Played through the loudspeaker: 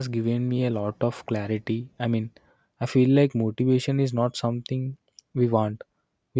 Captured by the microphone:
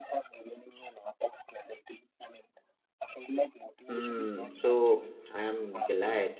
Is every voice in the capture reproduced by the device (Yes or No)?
No